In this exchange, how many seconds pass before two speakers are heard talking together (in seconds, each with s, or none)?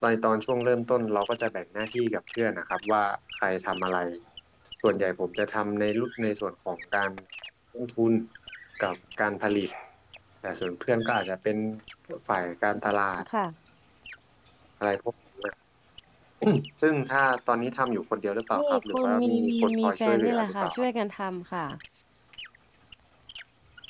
18.5 s